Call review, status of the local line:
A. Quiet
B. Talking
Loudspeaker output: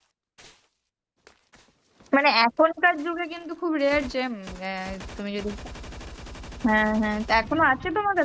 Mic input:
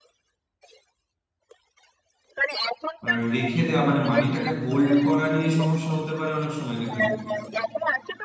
B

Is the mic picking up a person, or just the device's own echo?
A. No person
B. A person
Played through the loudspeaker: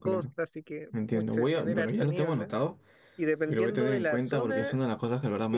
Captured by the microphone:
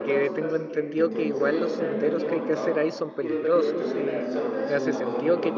B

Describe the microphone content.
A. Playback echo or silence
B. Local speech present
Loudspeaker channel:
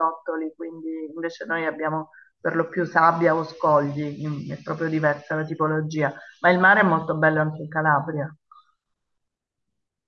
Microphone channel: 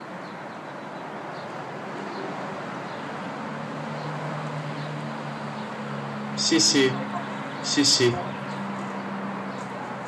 B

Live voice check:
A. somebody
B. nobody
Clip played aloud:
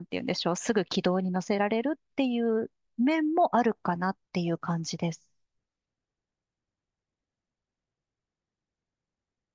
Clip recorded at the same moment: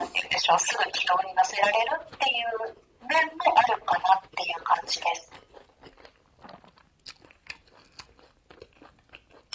B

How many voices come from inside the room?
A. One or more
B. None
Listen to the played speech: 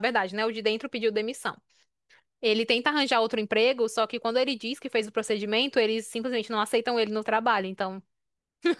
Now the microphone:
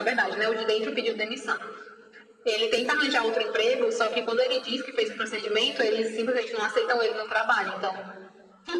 B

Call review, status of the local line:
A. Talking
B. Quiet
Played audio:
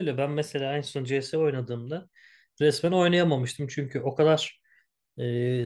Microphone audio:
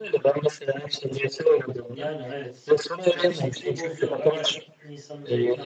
A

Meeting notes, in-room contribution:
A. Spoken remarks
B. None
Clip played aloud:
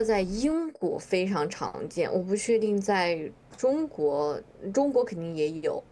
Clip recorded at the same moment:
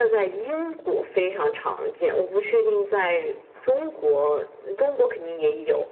B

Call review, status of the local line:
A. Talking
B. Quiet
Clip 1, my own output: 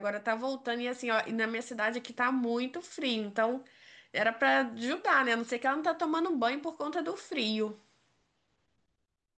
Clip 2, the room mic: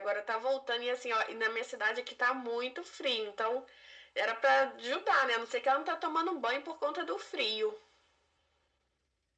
B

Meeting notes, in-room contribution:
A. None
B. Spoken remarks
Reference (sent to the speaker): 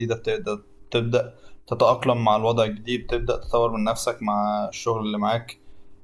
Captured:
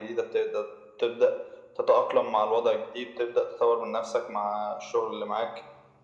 A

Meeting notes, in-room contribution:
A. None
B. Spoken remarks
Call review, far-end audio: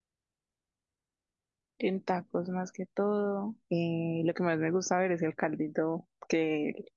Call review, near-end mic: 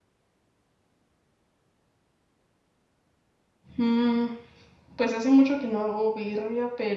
B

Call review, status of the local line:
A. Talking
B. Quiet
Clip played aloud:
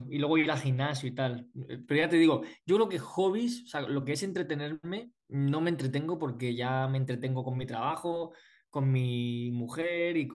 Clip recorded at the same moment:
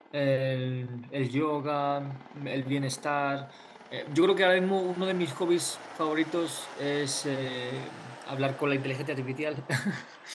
A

